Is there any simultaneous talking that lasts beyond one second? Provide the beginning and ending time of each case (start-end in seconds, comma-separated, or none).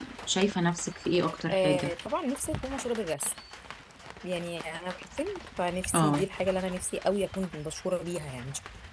none